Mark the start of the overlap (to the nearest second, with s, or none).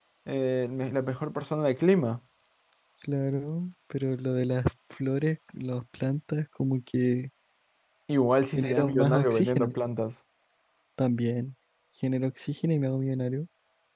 9 s